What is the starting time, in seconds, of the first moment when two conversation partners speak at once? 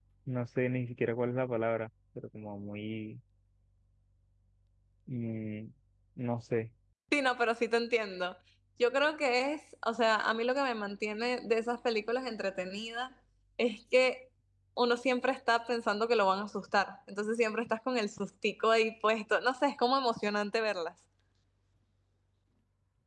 none

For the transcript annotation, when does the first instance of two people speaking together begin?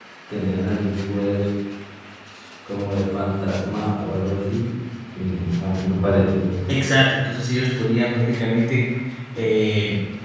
none

